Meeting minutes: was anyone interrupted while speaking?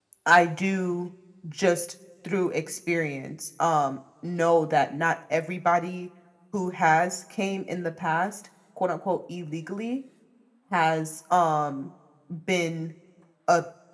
No

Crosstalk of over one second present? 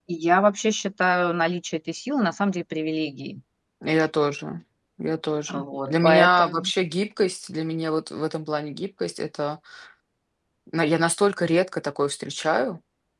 Yes, from 5.5 s

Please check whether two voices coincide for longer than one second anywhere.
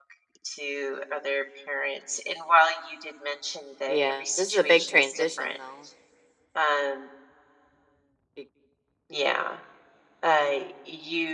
Yes, from 3.9 s

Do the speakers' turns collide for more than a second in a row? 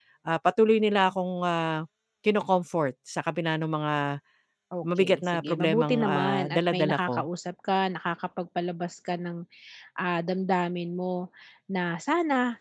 Yes, from 5.0 s

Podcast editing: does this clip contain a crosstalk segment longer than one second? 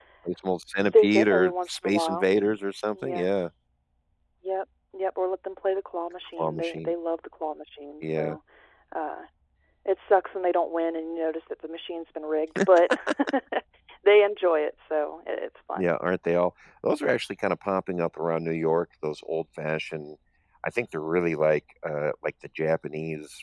Yes, from 0.9 s

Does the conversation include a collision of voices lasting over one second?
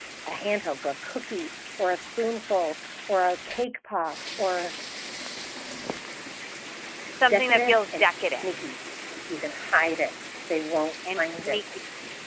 Yes, from 7.3 s

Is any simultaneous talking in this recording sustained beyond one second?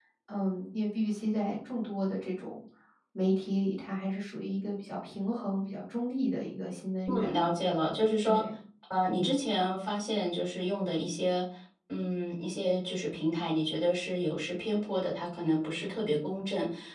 No

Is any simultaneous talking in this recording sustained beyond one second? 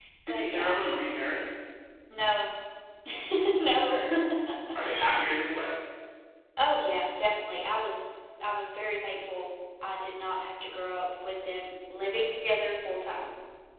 No

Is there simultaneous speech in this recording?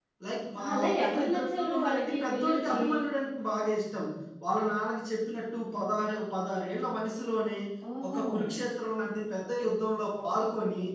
Yes, from 0.7 s

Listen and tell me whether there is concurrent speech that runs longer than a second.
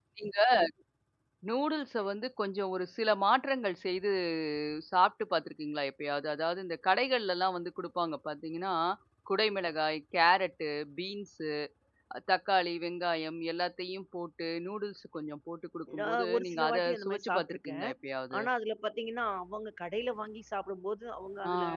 Yes, from 16.0 s

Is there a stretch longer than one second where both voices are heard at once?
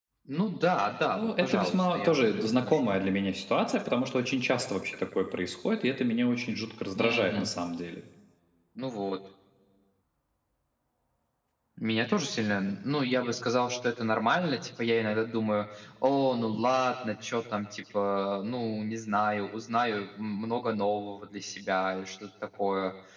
Yes, from 1.1 s

